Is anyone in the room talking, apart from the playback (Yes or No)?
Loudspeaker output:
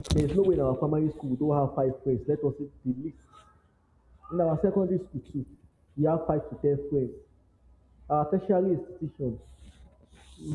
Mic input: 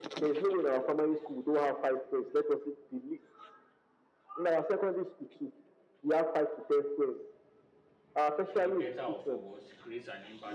Yes